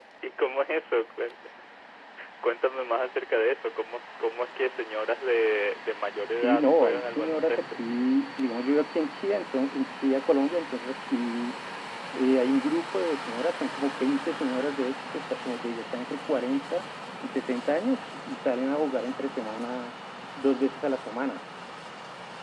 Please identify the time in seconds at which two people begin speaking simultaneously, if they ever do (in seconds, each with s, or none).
6.2 s